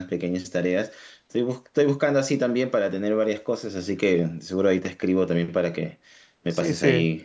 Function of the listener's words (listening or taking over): taking over